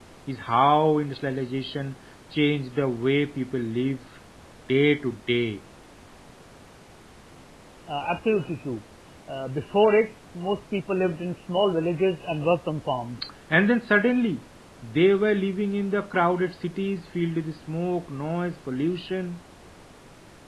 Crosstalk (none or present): none